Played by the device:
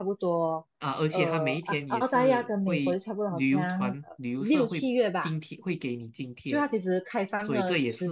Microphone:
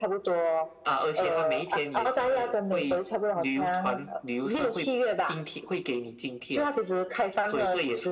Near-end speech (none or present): none